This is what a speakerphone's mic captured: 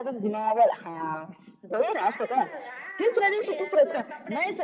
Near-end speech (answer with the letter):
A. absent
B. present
B